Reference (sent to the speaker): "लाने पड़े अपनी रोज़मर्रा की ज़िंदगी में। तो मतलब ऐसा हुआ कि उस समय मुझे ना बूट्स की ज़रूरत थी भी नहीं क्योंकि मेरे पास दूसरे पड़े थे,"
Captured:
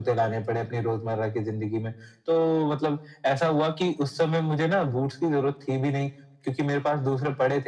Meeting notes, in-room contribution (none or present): none